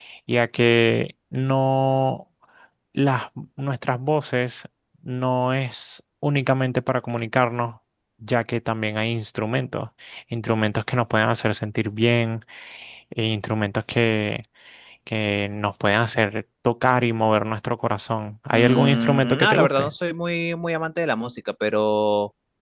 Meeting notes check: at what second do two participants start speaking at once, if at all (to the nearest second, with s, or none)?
19 s